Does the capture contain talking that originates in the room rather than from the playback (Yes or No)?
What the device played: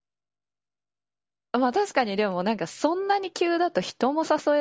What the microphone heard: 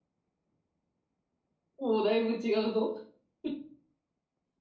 Yes